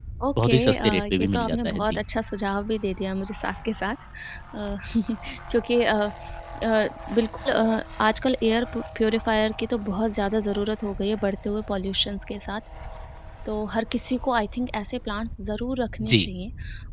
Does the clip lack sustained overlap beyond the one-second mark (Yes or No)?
No